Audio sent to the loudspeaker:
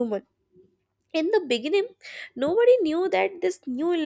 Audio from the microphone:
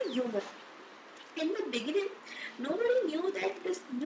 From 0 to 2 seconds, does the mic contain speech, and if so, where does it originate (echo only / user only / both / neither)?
echo only